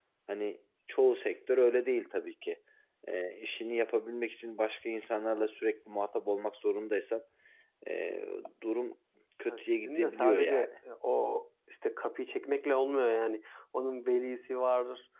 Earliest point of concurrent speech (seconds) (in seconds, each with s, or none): 9.5 s